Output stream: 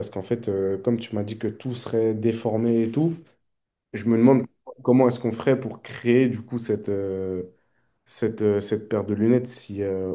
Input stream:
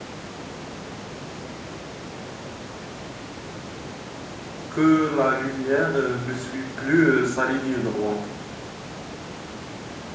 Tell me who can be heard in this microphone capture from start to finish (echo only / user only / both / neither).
user only